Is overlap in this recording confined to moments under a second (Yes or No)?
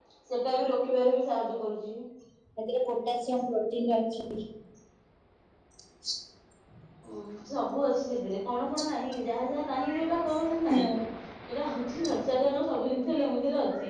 Yes